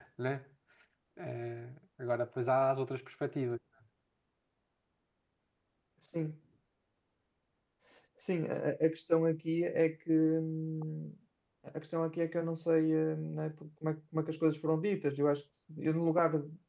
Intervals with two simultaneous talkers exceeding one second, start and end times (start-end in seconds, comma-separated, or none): none